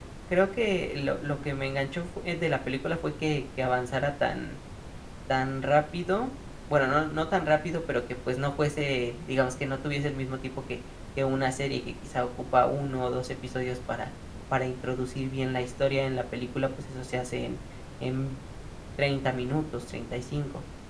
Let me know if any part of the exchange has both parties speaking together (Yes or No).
No